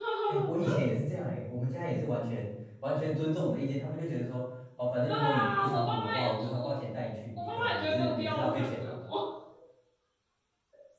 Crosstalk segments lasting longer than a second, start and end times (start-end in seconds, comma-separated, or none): 5.1-6.7, 7.4-8.9